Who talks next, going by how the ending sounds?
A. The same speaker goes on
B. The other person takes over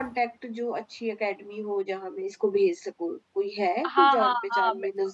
B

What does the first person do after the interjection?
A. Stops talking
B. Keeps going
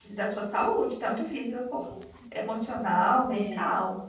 A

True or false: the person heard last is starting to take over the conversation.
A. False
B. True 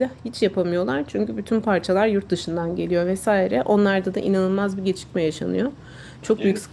A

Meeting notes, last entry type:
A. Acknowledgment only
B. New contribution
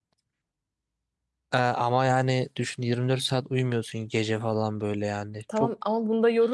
B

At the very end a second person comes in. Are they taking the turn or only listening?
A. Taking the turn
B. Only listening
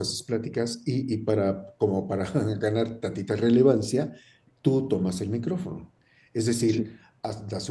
B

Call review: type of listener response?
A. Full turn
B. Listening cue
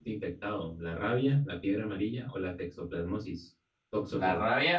A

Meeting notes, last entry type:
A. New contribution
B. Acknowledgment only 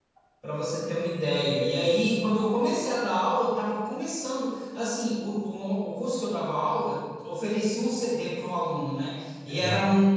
B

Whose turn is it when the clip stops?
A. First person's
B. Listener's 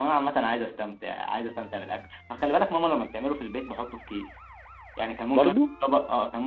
A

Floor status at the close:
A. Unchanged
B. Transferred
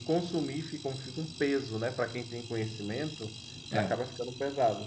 A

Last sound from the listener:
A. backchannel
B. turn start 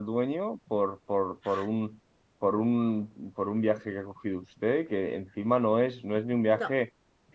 A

